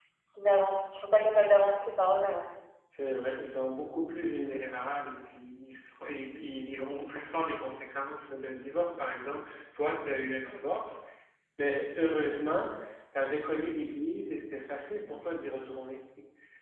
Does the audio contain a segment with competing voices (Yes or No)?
No